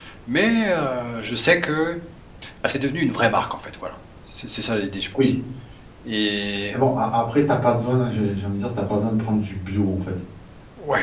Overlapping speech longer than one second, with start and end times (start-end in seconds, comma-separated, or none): none